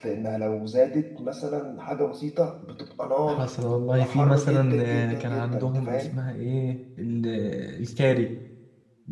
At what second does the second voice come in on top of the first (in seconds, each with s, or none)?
3.3 s